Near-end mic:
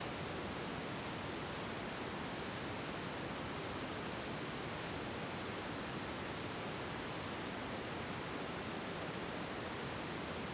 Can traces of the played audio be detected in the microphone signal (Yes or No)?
No